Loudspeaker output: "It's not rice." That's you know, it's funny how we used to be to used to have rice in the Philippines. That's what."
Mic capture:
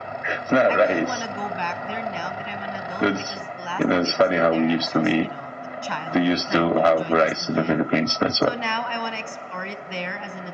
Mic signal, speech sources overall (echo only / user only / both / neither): both